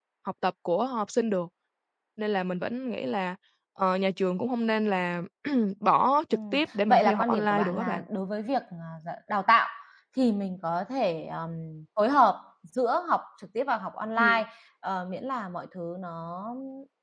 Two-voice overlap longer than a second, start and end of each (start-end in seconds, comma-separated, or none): 6.3-8.0